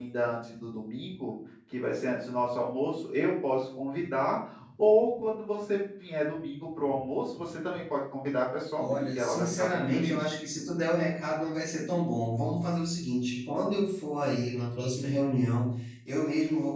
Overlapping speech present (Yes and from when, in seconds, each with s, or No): Yes, from 8.8 s